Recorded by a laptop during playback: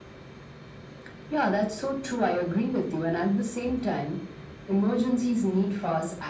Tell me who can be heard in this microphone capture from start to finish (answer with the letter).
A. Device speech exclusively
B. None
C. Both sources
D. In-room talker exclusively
A